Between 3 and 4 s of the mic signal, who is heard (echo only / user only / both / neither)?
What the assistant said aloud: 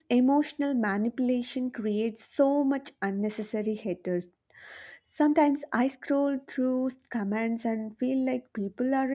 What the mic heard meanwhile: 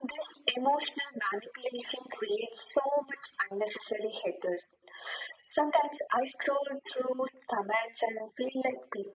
echo only